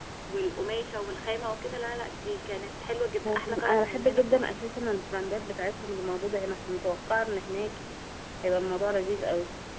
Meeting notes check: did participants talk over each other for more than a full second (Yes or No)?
Yes